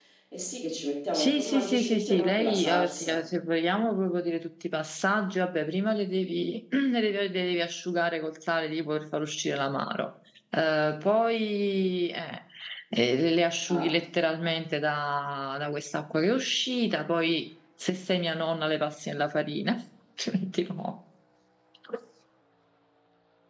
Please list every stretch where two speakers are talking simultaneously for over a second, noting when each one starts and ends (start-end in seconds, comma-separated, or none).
1.1-3.2